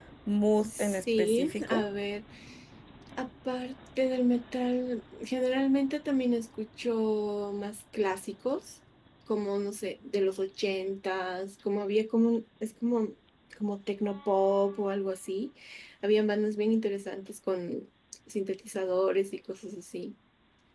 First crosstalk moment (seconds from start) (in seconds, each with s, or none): 0.6 s